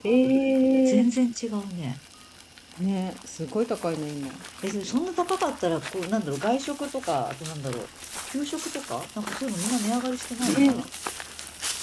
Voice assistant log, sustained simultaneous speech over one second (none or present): none